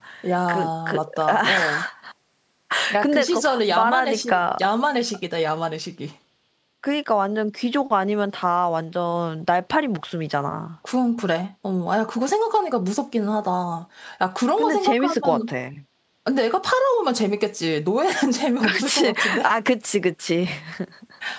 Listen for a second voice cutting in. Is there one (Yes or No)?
Yes